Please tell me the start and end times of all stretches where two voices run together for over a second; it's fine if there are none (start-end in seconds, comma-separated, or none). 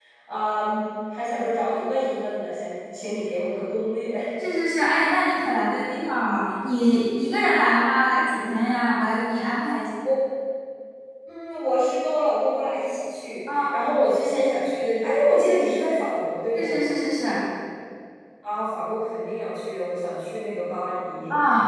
none